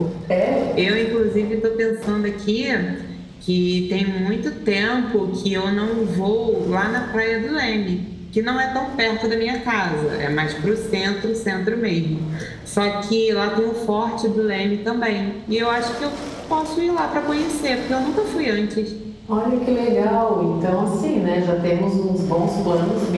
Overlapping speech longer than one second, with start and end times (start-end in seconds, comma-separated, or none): none